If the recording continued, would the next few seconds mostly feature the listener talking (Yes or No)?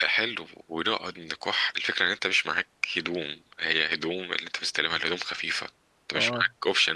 No